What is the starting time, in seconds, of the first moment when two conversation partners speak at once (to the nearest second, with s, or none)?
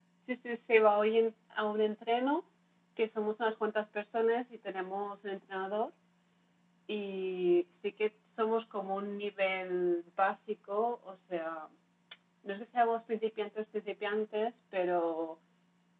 none